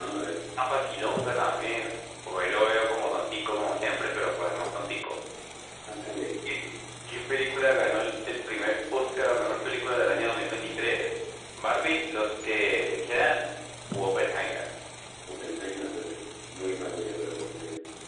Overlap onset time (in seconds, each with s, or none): none